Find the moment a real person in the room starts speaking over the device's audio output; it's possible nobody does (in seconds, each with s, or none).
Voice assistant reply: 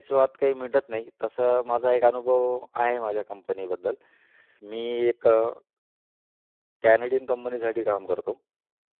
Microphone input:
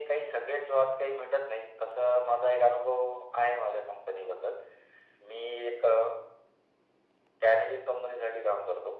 none